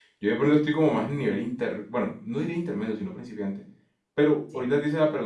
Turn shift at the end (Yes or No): No